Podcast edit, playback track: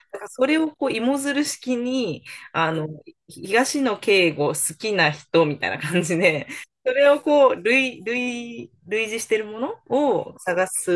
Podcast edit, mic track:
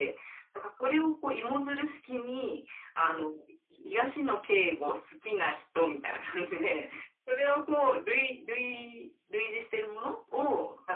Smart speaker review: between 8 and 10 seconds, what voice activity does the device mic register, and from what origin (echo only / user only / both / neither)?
echo only